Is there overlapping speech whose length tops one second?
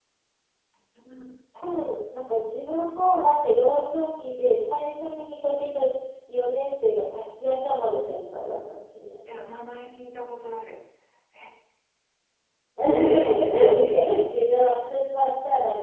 No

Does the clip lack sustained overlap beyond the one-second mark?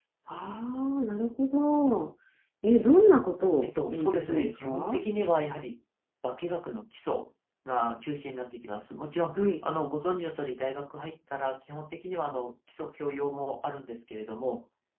No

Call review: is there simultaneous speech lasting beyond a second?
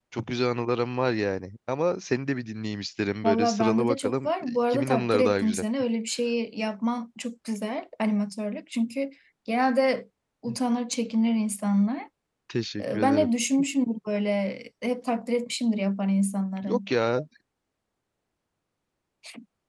Yes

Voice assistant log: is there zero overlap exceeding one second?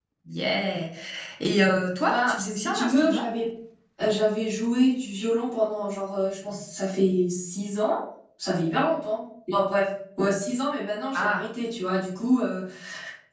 No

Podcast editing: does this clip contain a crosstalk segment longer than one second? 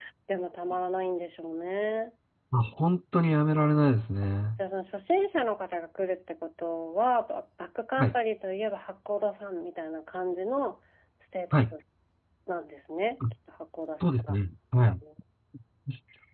No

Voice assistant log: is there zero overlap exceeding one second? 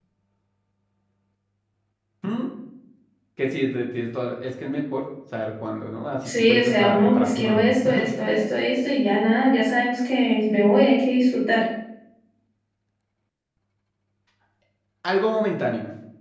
No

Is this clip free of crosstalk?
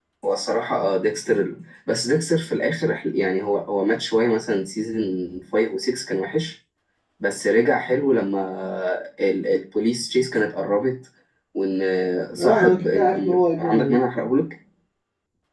No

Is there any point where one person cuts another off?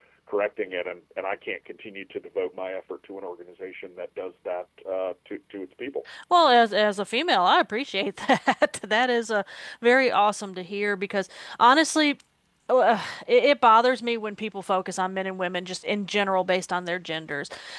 No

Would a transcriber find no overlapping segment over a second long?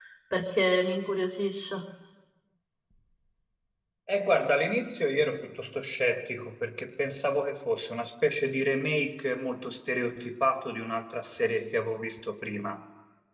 Yes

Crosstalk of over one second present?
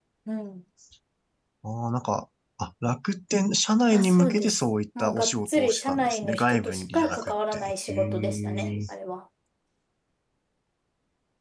Yes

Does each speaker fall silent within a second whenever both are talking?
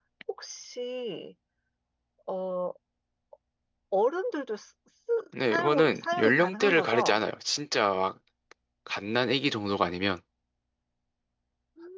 No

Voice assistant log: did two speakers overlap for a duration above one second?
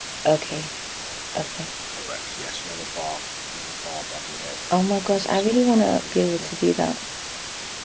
Yes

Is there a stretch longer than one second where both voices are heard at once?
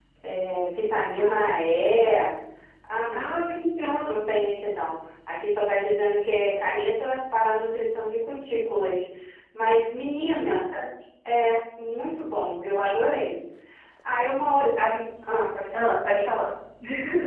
No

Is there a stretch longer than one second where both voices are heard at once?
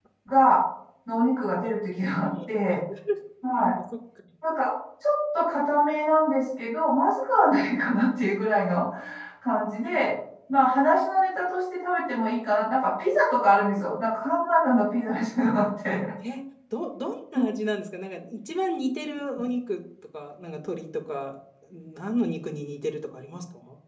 No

